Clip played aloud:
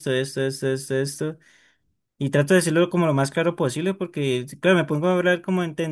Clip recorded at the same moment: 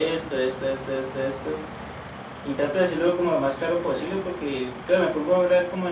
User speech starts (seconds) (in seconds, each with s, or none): none